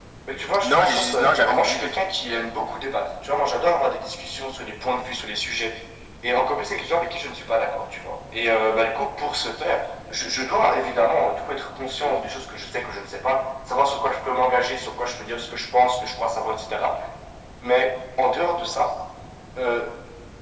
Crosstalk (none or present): present